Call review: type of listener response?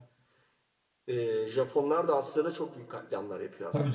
taking over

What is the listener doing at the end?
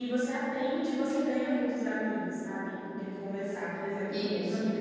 listening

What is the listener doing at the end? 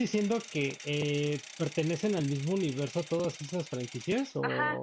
taking over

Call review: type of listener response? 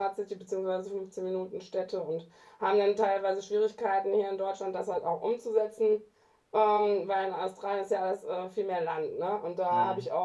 listening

